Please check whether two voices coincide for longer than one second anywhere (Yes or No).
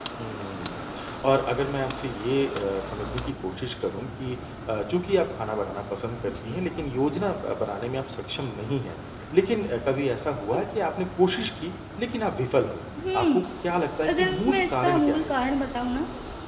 Yes